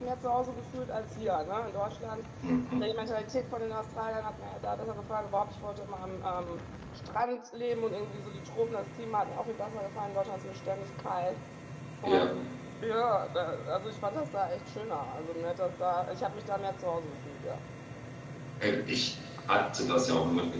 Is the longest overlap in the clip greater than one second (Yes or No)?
No